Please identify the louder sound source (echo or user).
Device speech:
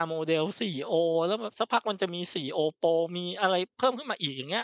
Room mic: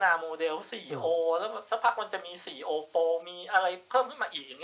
echo